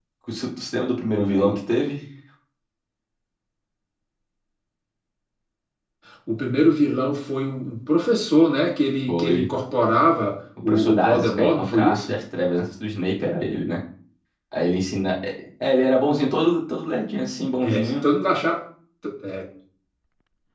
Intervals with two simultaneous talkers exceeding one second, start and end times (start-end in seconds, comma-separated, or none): 10.6-12.2